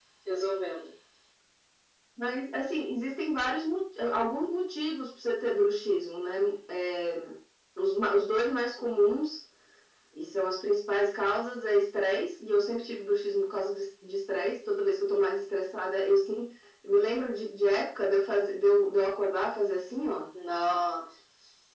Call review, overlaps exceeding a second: none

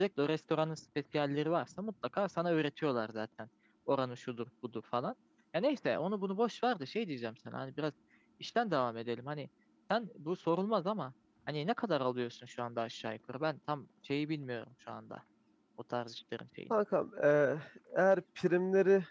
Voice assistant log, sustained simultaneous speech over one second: none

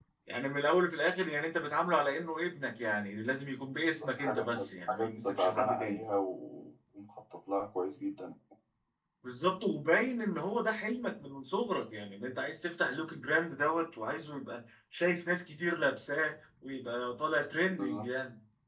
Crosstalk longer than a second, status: present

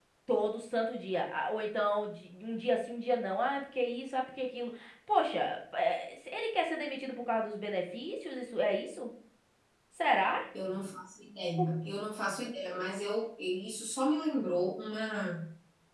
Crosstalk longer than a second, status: none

